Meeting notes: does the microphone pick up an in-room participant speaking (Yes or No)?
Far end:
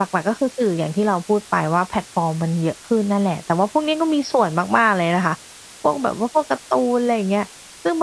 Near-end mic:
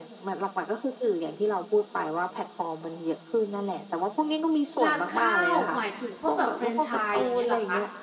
Yes